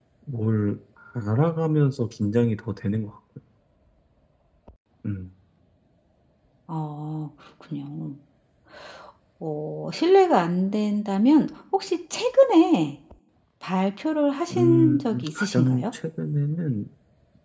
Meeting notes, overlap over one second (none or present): present